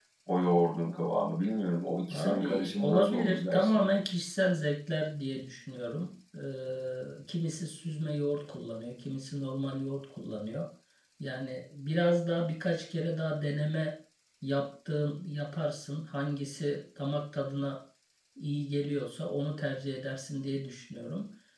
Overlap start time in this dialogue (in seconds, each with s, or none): 2.1 s